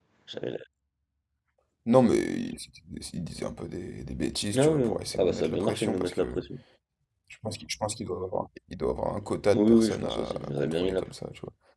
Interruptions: present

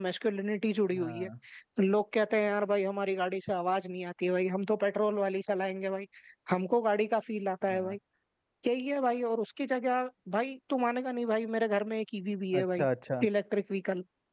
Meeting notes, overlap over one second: none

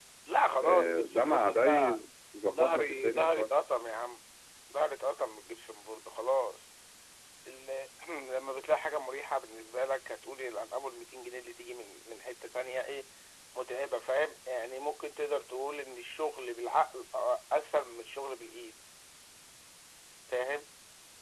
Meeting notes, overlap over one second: present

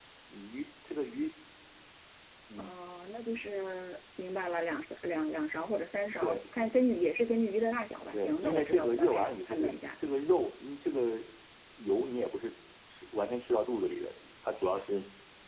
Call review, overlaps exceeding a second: present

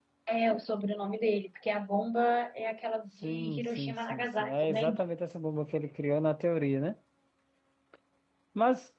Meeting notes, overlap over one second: present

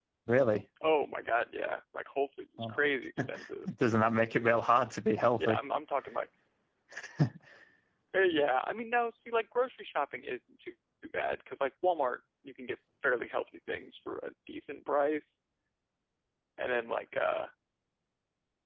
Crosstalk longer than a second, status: none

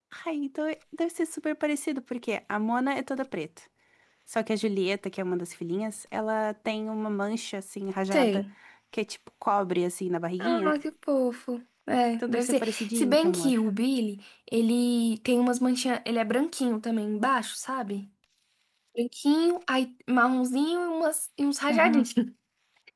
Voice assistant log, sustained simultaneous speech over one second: present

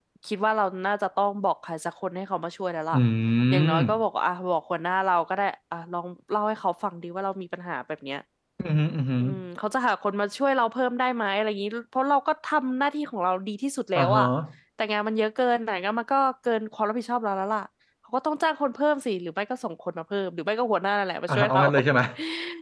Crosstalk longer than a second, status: none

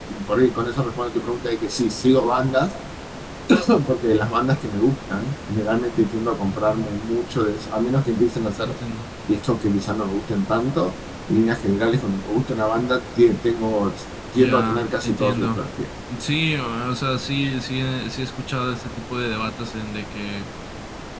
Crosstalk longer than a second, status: present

